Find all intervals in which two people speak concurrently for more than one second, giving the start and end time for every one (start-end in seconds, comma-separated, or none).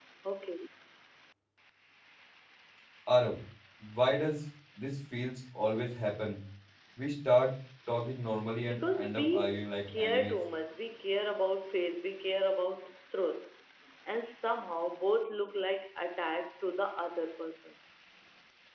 8.7-10.4